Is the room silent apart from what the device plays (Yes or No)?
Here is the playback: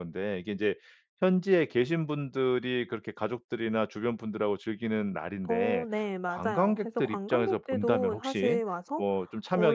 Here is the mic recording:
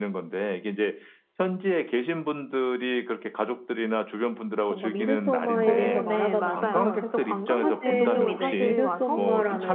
No